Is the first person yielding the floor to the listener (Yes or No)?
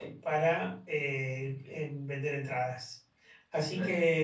No